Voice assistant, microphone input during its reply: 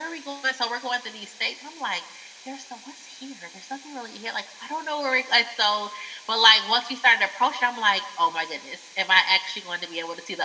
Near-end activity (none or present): none